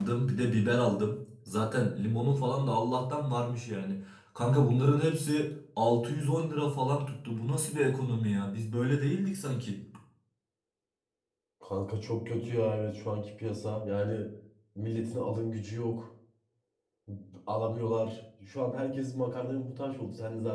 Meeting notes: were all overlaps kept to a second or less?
Yes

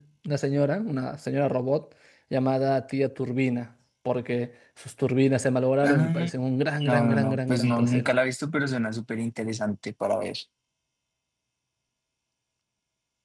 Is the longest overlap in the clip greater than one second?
Yes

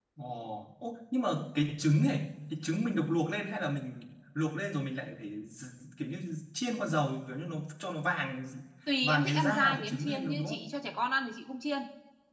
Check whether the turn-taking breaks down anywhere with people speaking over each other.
Yes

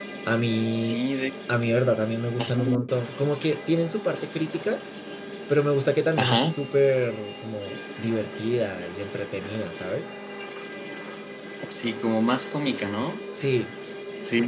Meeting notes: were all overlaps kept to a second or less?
Yes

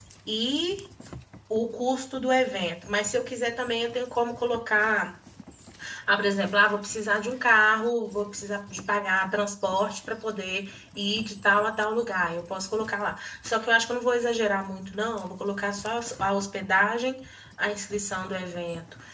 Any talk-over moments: No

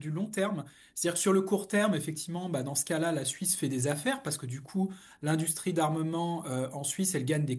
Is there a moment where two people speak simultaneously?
No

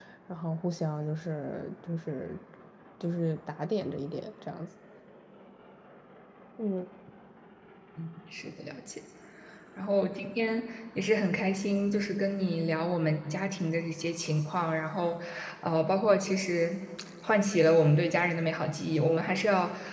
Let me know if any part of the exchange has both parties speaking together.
No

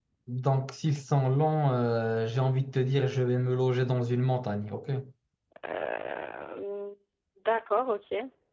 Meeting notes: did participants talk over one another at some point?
No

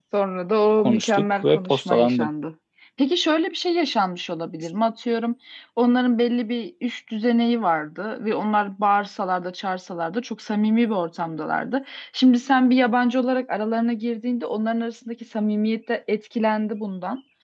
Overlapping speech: Yes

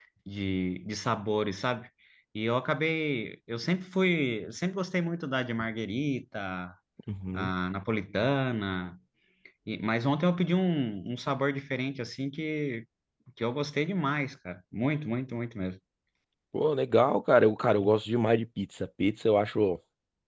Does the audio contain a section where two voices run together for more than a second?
No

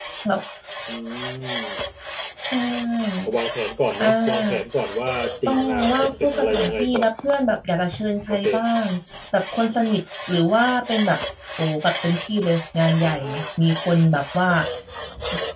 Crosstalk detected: Yes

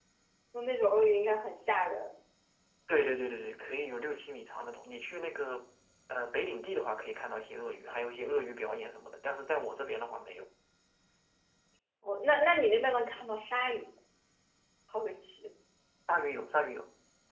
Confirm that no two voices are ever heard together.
Yes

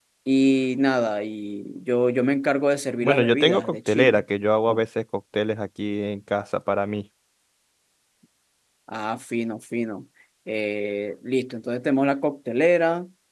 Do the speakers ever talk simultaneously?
Yes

